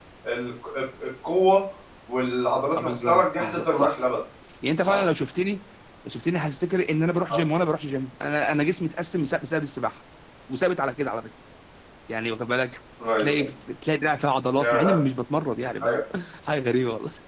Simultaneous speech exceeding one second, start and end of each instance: 2.8-4.0

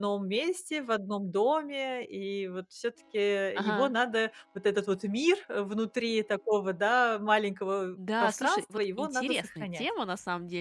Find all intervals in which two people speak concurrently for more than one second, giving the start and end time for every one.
8.2-9.8

